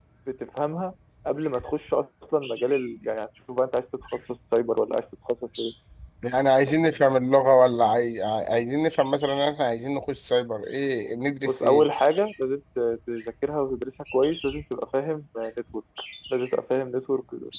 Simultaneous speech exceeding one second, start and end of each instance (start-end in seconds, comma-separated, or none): none